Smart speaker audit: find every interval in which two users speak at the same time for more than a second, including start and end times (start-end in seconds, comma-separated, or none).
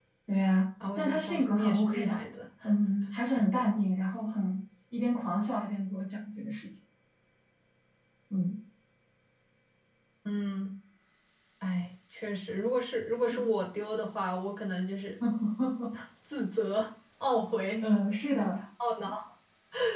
1.0-2.2